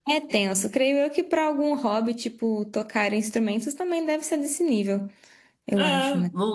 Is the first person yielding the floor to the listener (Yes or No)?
Yes